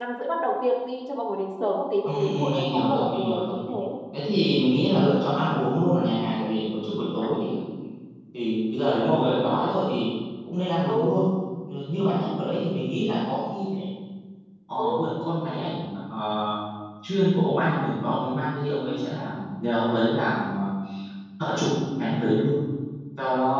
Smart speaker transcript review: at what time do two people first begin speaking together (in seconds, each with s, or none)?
2.0 s